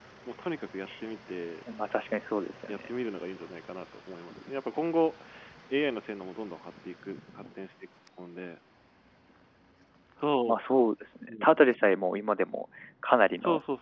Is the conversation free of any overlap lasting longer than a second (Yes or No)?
Yes